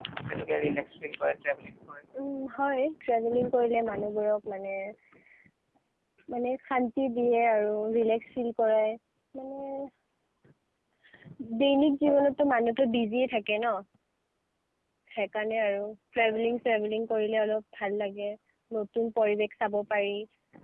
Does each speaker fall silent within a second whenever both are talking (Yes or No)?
Yes